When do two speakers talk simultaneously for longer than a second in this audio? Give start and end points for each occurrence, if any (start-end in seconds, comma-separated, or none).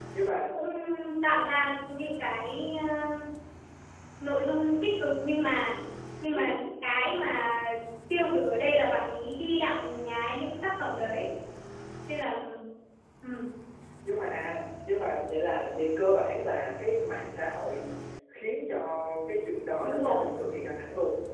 none